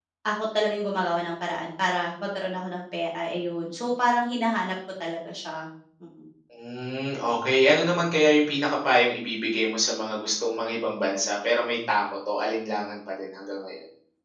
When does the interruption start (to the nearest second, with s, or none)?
none